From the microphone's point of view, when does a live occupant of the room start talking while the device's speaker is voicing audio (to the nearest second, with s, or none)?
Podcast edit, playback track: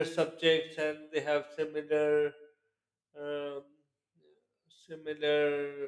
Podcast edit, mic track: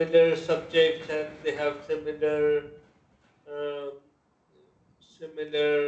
none